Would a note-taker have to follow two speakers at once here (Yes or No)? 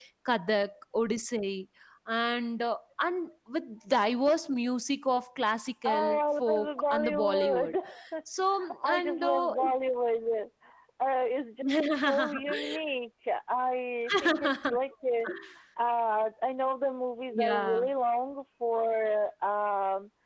Yes